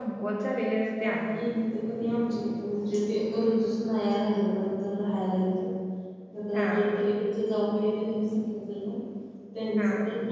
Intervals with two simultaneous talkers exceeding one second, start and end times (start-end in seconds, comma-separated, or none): none